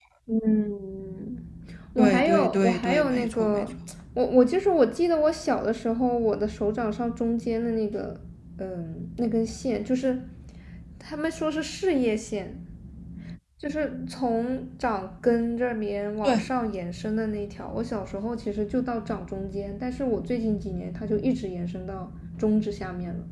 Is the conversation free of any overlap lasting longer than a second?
No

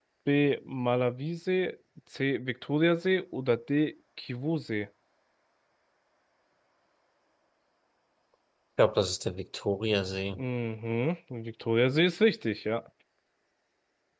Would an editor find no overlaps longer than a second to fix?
Yes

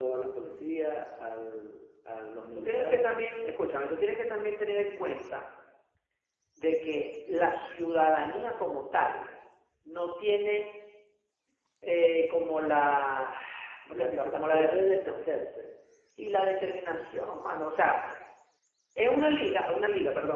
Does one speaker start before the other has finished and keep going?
Yes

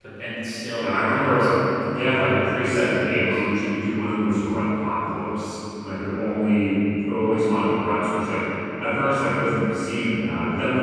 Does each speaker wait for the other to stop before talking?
No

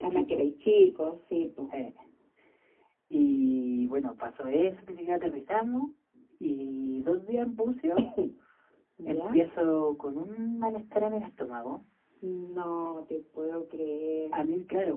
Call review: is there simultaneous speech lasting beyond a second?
No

